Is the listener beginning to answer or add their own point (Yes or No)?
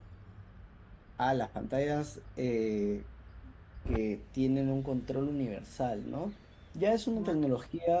No